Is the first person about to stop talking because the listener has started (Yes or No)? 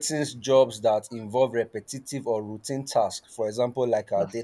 No